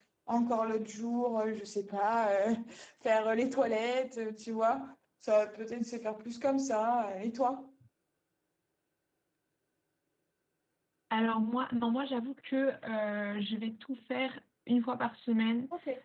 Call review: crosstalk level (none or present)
none